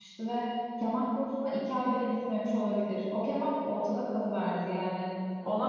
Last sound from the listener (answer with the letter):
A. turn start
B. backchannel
B